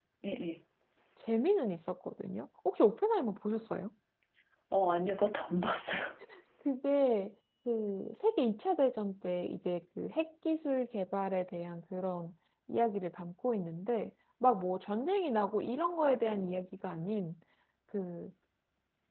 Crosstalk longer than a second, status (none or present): none